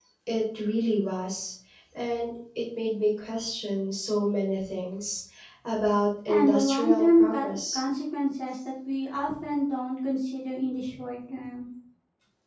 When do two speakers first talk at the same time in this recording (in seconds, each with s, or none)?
6.3 s